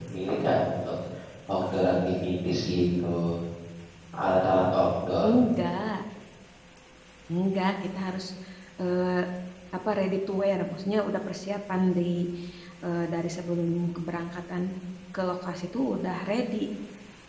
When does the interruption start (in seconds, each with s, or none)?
none